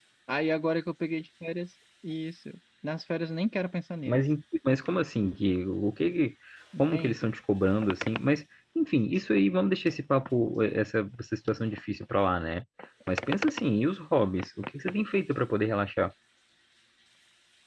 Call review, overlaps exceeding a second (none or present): none